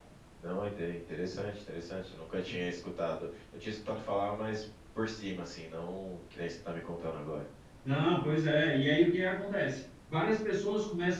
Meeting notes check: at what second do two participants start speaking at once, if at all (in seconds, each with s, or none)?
none